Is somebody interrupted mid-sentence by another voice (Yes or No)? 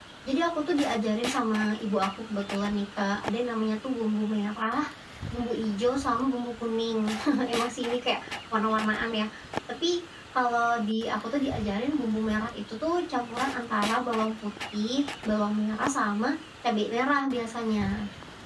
No